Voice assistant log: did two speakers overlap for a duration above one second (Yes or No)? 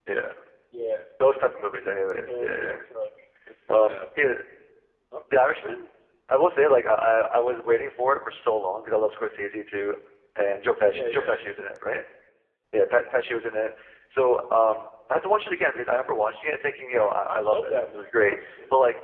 Yes